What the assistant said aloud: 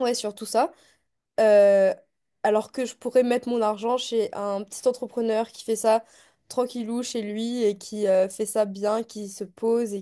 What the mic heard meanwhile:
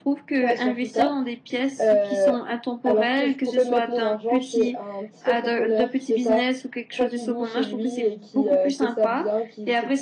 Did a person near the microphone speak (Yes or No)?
Yes